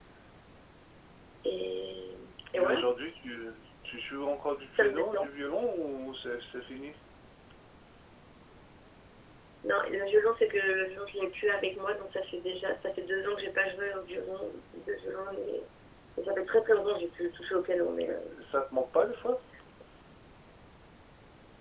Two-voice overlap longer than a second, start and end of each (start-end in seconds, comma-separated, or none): none